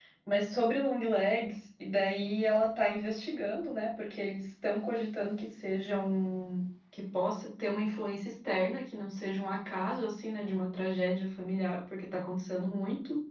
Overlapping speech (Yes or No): No